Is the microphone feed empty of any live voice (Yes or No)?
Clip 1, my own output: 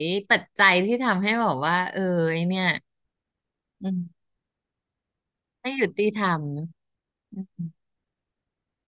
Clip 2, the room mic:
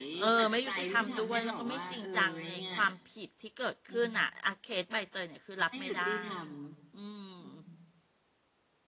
No